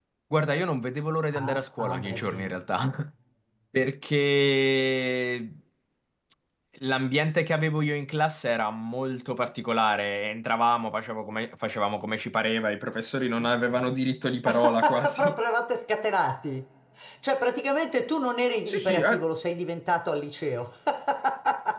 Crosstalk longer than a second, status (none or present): present